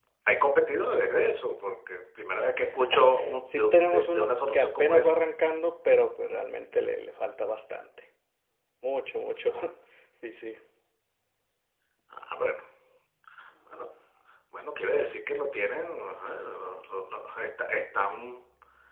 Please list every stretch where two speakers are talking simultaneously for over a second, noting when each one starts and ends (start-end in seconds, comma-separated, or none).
3.5-5.1